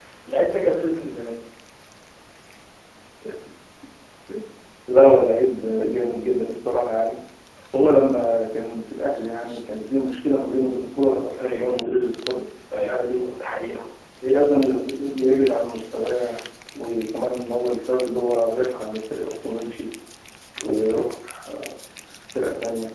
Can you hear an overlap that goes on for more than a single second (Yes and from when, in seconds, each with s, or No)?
No